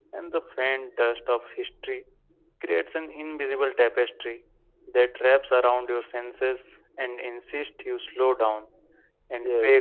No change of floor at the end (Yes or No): Yes